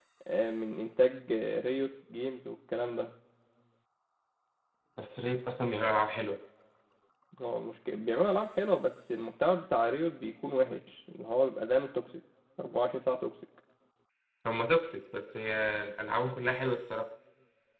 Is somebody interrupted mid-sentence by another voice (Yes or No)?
No